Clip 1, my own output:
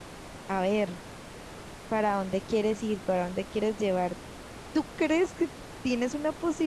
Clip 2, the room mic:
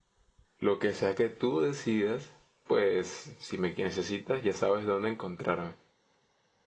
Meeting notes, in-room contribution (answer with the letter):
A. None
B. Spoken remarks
B